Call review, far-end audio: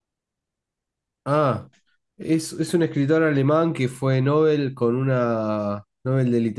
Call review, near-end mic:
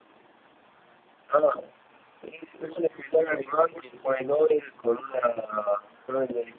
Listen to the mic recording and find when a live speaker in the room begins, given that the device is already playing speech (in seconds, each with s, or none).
none